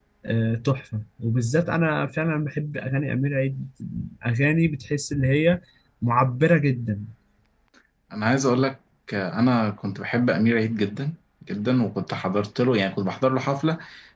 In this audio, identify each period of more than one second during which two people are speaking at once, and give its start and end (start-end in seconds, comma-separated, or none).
none